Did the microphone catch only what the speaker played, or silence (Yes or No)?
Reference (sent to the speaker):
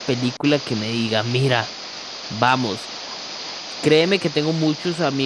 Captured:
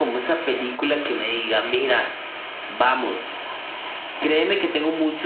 Yes